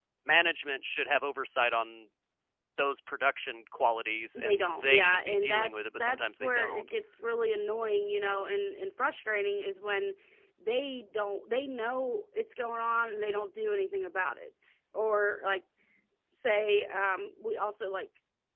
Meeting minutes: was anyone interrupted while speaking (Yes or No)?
Yes